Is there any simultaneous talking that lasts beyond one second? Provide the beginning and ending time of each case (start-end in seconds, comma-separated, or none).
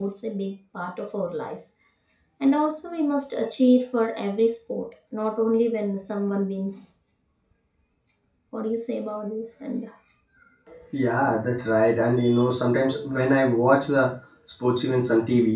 none